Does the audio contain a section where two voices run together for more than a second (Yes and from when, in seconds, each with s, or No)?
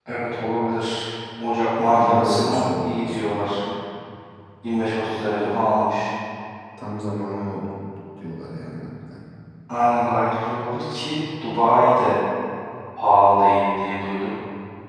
Yes, from 1.8 s